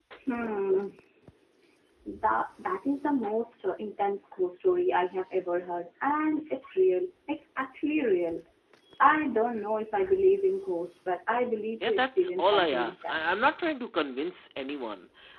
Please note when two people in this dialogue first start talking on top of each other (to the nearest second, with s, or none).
12 s